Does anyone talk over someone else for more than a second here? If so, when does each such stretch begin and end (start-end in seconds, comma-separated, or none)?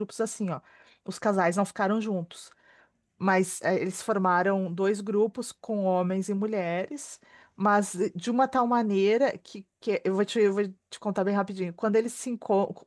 none